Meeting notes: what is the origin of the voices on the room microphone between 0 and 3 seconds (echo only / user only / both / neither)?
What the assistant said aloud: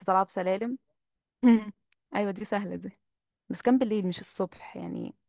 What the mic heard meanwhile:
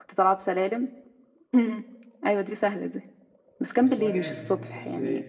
echo only